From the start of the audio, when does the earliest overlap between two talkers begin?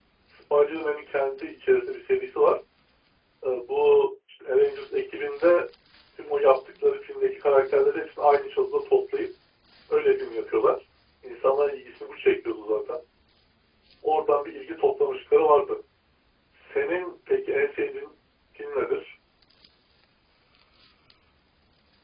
none

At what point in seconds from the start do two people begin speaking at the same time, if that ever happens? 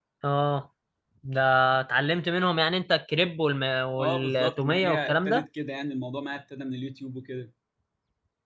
4.0 s

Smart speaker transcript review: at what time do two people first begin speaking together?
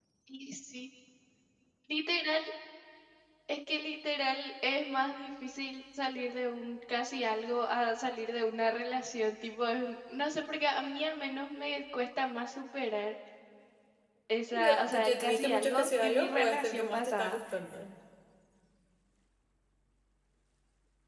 14.5 s

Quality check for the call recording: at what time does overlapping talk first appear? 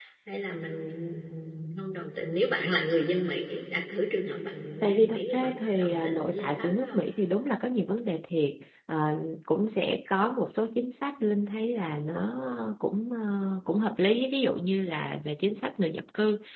4.8 s

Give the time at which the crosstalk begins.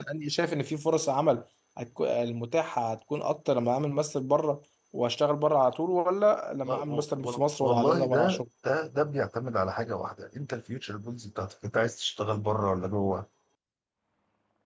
6.6 s

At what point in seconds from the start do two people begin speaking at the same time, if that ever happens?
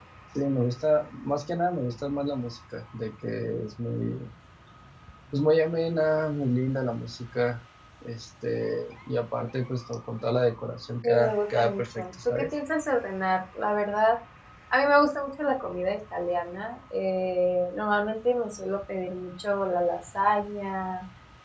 11.0 s

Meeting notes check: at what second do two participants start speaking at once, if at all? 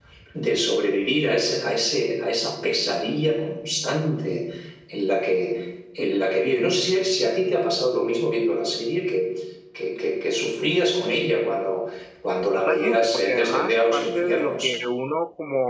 12.5 s

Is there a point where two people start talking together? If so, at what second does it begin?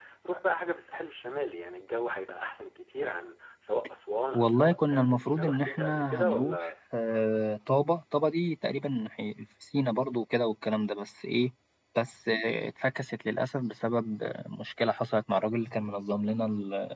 4.3 s

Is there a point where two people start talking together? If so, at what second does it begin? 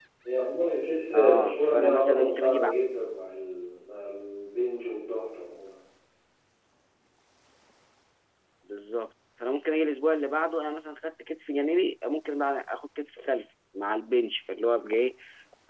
1.1 s

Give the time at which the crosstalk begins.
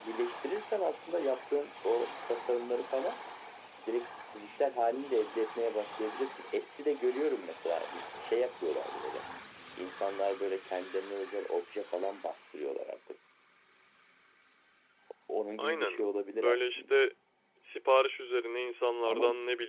15.6 s

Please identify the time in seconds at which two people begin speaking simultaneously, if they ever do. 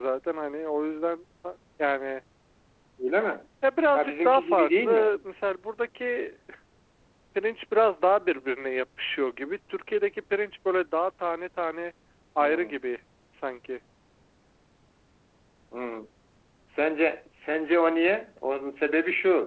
3.9 s

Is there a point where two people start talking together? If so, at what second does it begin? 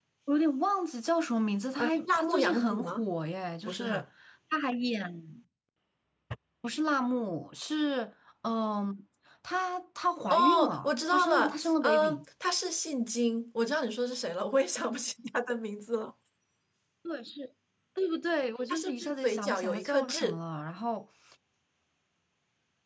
1.8 s

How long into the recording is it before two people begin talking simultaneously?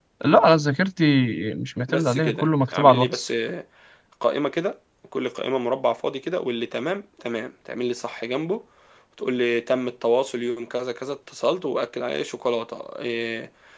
1.9 s

